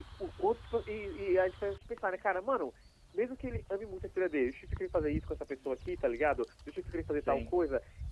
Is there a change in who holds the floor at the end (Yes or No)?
No